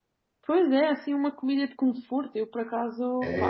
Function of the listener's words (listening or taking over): taking over